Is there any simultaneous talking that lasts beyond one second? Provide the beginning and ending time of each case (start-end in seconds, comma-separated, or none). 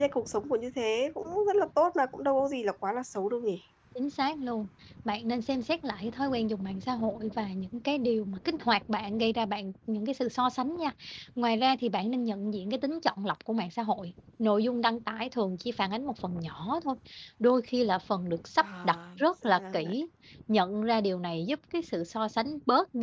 18.6-19.9